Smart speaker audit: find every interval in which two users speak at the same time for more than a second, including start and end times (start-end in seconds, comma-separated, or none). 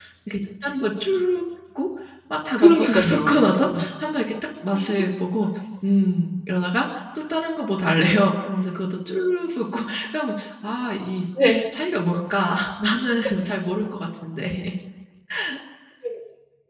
2.6-3.9